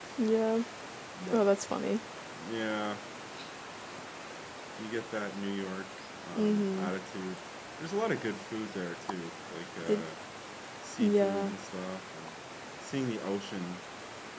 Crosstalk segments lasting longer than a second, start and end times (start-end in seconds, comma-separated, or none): none